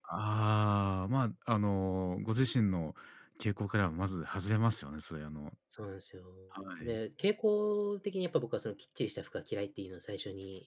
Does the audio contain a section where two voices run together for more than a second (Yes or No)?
No